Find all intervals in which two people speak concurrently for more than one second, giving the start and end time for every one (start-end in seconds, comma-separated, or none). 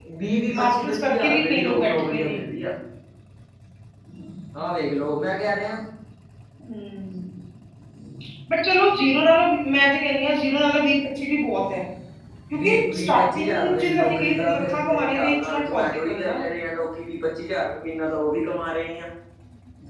0.6-2.4, 12.6-16.4